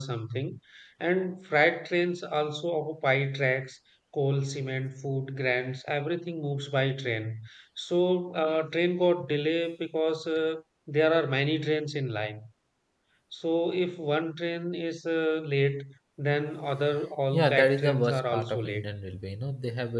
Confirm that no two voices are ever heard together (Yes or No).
No